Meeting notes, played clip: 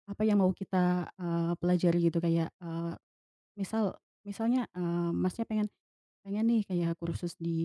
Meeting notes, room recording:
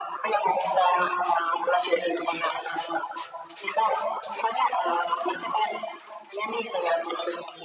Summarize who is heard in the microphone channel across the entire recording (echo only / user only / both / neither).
echo only